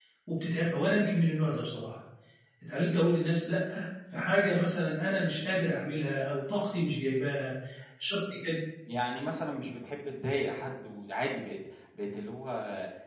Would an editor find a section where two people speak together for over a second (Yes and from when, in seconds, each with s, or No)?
No